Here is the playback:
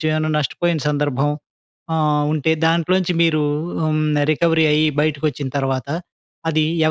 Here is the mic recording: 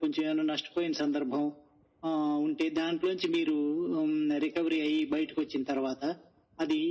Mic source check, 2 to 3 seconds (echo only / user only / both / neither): echo only